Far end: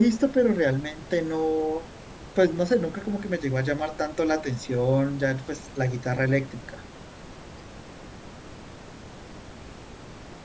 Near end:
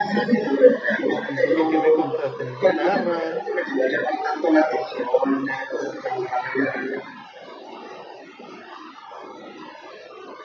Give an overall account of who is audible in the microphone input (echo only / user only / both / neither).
both